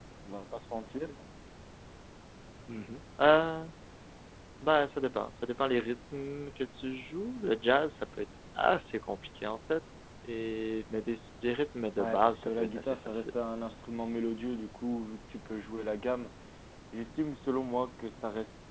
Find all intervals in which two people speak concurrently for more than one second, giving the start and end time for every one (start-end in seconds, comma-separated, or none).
12.0-13.3